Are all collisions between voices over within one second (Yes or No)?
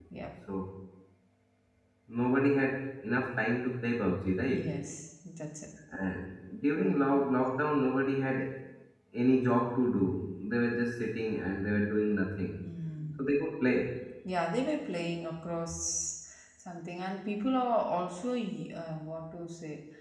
Yes